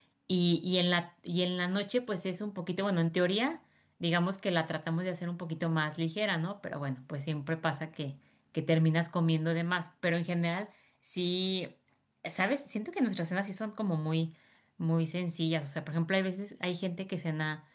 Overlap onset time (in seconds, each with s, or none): none